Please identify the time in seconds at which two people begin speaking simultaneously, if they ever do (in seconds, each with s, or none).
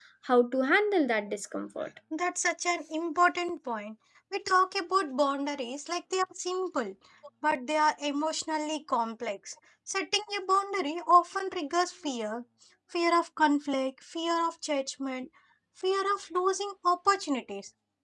none